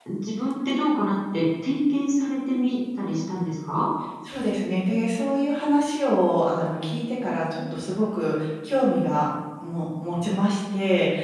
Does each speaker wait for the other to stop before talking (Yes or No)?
Yes